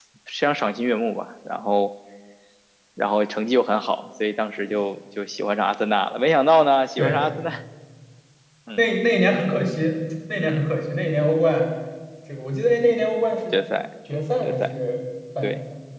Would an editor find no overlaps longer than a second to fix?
Yes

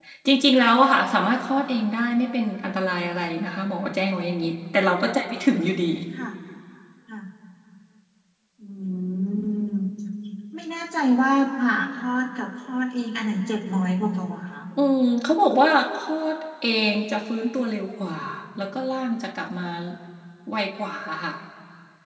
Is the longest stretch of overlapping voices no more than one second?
Yes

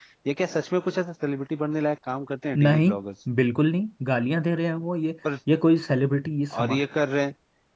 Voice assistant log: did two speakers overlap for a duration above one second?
No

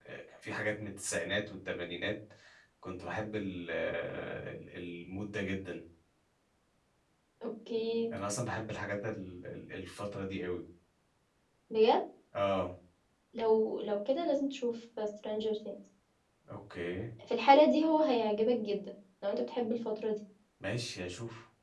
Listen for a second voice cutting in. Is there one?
No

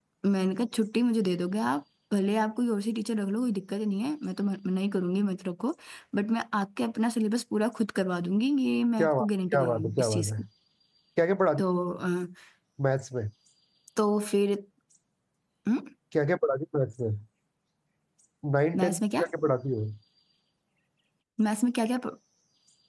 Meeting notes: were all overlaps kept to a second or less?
No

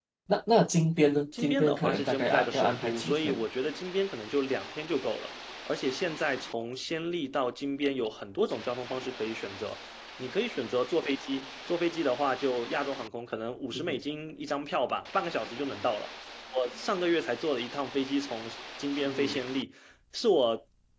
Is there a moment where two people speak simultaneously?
Yes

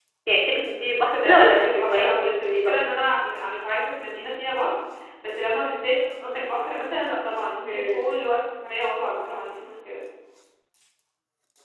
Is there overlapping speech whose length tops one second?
Yes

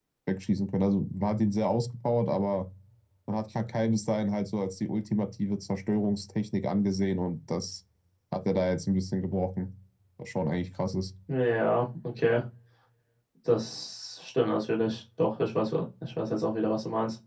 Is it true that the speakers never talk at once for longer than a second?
Yes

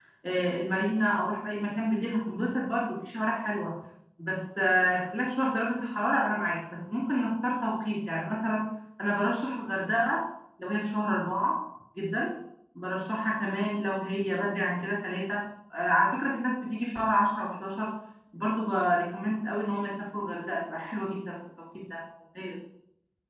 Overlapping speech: No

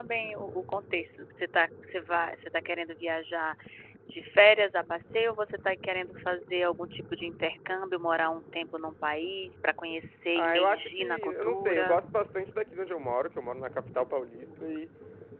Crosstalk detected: Yes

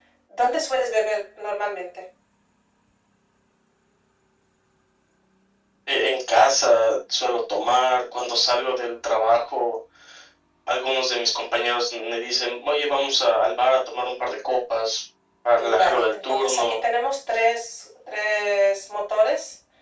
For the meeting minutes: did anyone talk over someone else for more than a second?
Yes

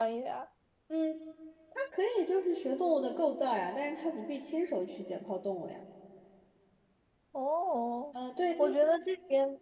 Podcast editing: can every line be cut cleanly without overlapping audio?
Yes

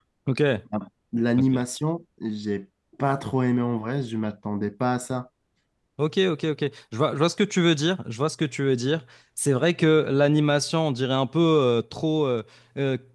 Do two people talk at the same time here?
No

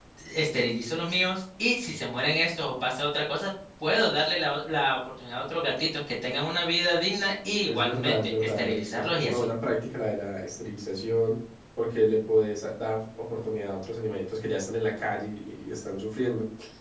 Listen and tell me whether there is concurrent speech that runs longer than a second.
Yes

